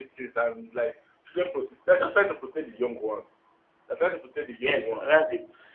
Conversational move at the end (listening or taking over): taking over